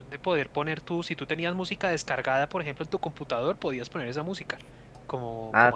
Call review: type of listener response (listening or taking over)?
taking over